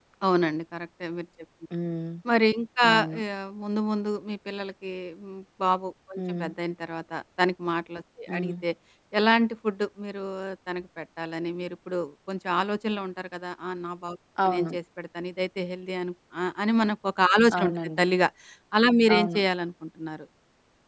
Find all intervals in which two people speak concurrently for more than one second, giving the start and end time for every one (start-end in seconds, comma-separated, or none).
none